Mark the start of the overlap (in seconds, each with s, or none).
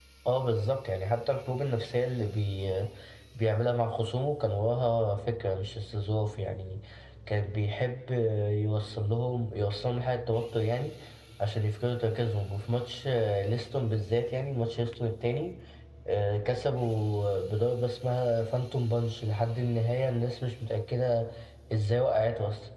none